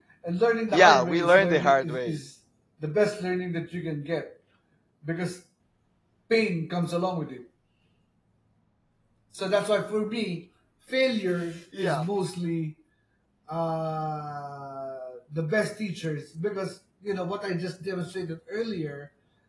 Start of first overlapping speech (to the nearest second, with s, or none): 1 s